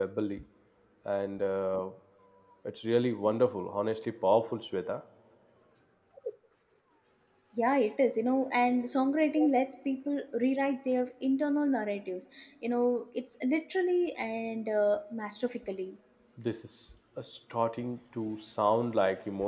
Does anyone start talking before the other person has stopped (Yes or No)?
No